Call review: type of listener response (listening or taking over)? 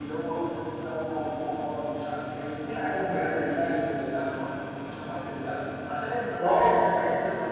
listening